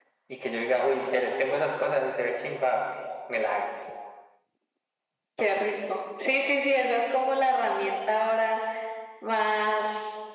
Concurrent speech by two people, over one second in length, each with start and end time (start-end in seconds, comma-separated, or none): none